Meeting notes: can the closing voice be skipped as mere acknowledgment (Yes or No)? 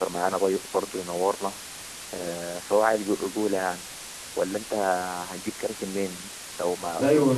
No